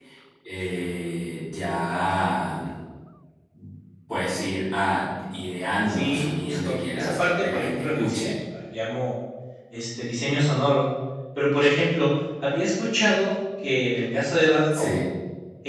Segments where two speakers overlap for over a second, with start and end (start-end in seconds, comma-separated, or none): 5.9-8.3